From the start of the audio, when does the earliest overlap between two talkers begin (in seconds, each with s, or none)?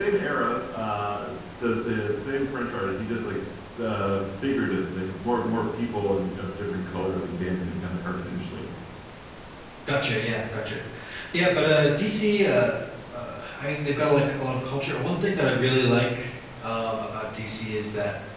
none